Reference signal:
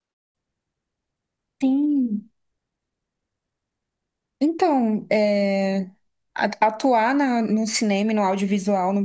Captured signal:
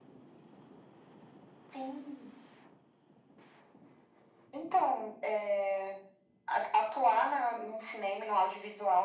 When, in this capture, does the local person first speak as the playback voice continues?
none

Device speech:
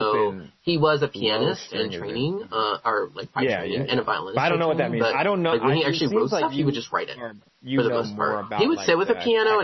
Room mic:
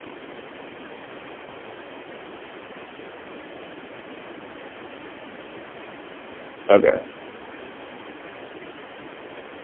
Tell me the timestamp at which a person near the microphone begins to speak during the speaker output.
6.7 s

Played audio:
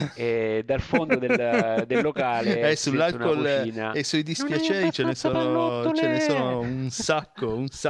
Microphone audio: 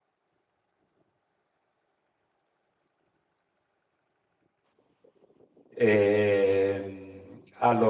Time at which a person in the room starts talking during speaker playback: 5.7 s

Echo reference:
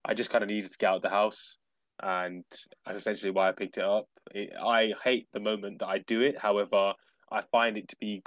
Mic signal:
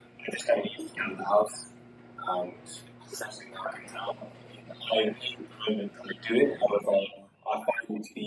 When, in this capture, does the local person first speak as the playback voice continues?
none

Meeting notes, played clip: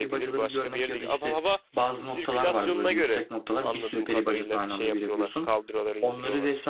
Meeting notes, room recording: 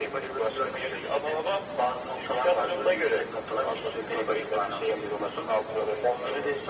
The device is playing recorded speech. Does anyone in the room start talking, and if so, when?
none

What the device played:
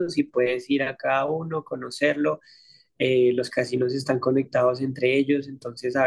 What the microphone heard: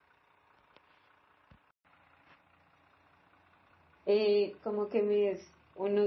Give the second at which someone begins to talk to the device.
4.0 s

